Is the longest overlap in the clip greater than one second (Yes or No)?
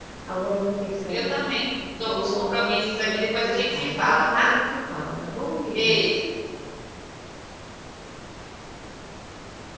Yes